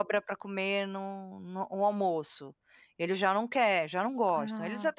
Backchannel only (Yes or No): Yes